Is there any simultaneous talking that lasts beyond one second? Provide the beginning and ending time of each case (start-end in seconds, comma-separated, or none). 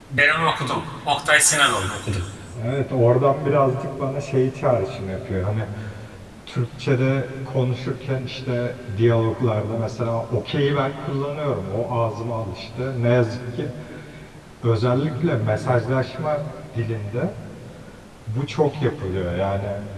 none